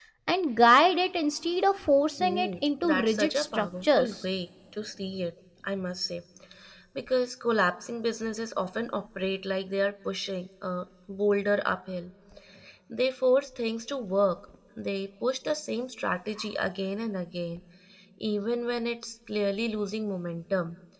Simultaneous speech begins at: 2.2 s

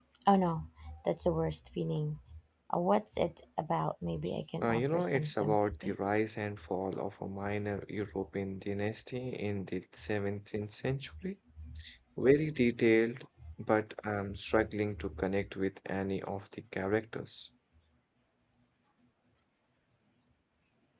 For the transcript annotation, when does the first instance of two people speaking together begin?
4.6 s

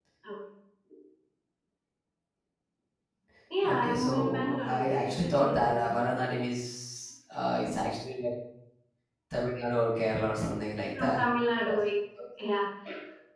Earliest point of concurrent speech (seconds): 3.7 s

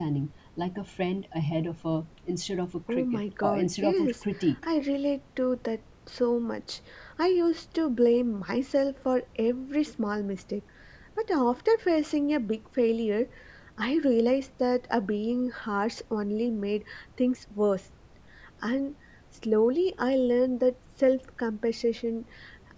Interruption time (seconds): 2.9 s

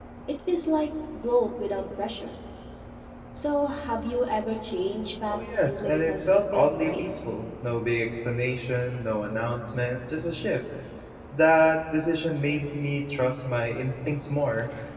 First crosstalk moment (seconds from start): 5.3 s

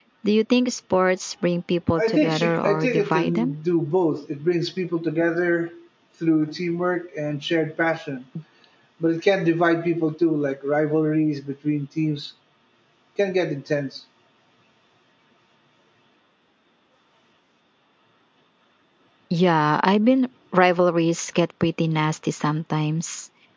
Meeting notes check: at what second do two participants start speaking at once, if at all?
2.0 s

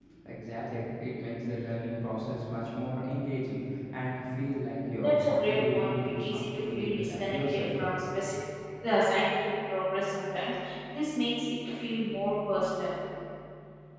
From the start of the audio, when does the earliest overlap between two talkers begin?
4.9 s

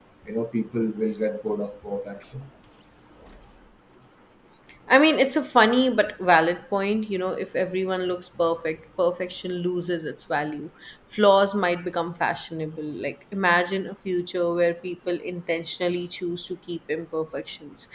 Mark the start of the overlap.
none

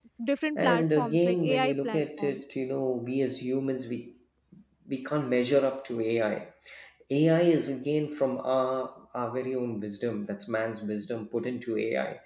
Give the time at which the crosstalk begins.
0.6 s

